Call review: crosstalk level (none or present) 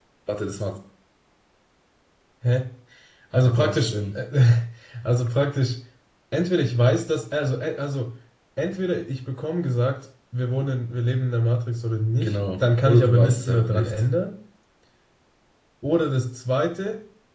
present